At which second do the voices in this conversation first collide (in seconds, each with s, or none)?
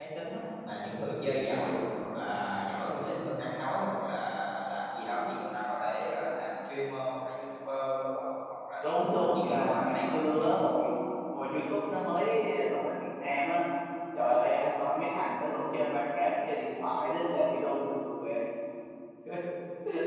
8.8 s